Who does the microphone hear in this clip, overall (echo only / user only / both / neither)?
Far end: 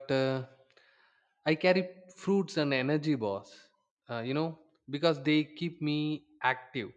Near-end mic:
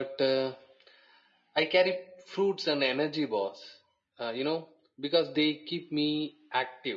echo only